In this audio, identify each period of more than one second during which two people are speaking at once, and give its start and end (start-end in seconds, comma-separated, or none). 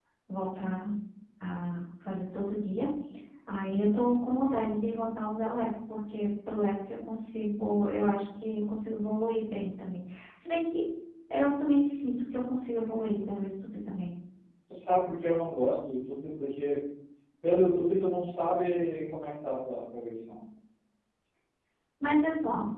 none